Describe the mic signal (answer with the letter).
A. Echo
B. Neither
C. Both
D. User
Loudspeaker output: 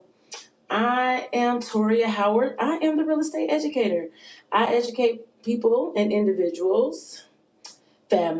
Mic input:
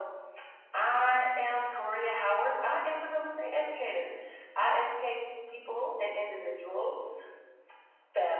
A